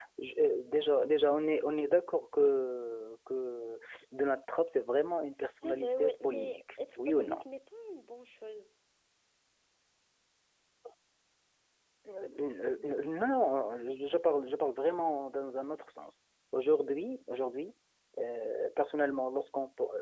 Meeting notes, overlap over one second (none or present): present